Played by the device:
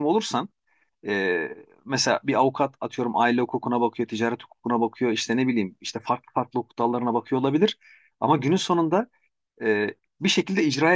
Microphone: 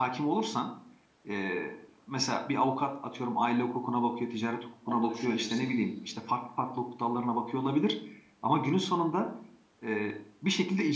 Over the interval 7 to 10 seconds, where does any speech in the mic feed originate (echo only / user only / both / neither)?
echo only